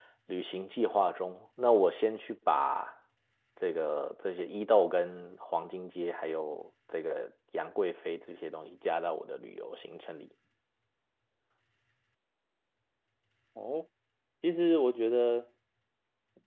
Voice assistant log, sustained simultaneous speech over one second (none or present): none